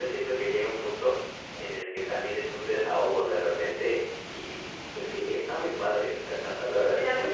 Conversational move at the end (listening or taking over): taking over